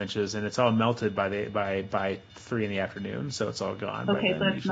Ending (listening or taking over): taking over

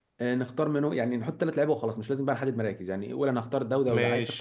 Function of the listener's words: listening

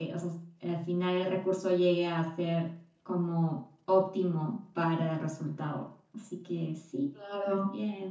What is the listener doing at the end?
taking over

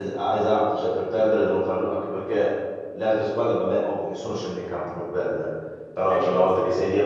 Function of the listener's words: listening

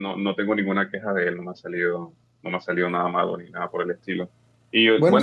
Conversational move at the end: listening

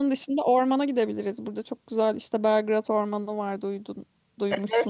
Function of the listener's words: taking over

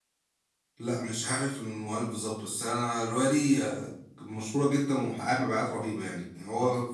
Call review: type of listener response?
listening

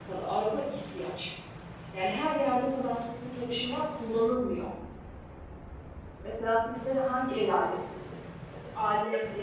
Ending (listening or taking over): listening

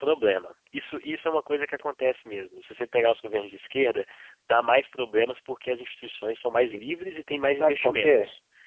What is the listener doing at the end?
taking over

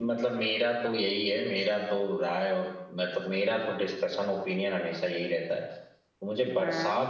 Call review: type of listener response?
listening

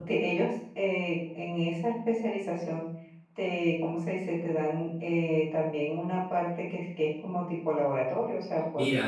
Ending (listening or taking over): taking over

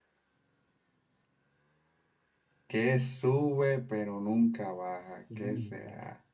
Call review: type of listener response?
listening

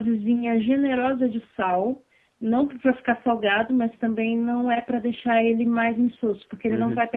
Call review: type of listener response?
listening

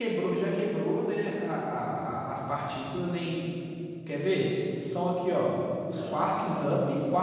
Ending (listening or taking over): listening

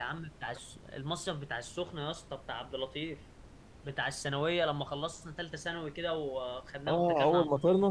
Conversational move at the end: taking over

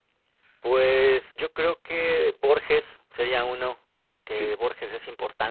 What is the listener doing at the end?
listening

